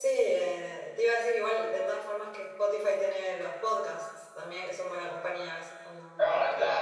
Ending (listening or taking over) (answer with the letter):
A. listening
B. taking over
B